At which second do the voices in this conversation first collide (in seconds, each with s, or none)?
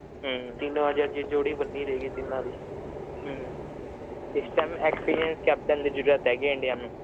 none